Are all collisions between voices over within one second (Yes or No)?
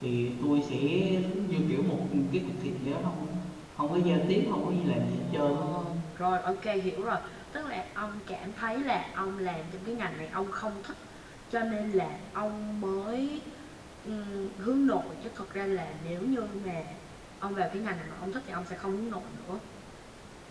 Yes